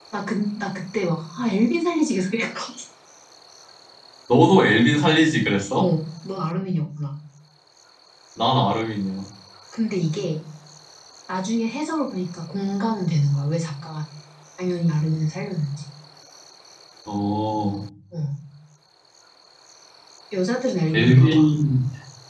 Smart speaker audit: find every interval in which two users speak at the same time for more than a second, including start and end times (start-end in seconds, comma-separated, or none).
none